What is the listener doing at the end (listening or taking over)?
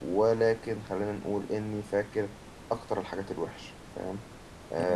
taking over